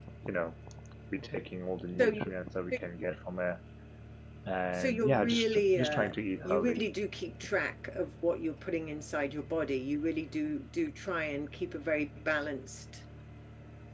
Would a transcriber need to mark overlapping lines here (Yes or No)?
Yes